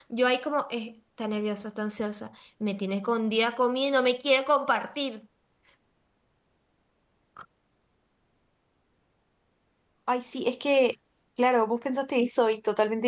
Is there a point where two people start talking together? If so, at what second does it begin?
none

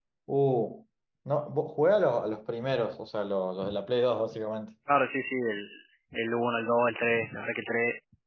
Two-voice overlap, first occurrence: none

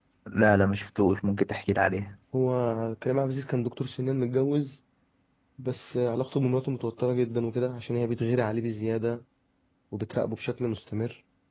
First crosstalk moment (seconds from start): none

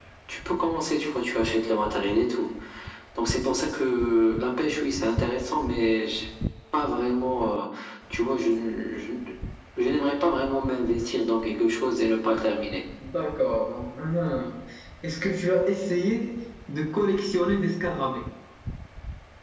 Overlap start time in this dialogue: none

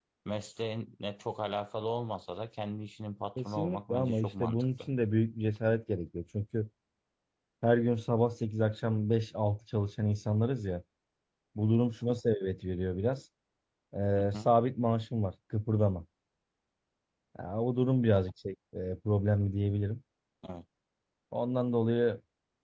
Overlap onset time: 3.4 s

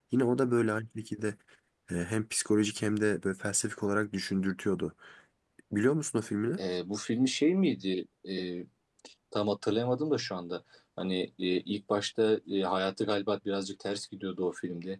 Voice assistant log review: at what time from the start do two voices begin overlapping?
none

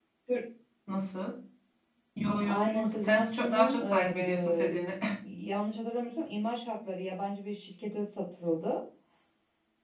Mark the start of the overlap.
2.4 s

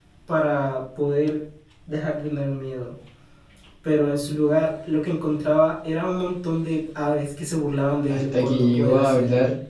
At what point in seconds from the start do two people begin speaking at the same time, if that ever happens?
8.1 s

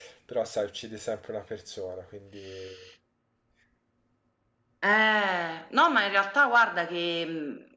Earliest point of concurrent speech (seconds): none

